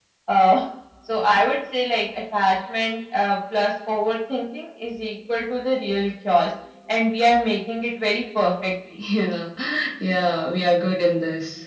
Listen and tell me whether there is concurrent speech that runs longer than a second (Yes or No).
No